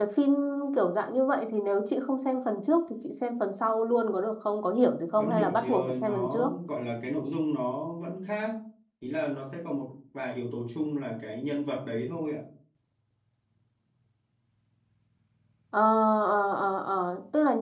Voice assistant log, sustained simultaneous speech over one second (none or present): present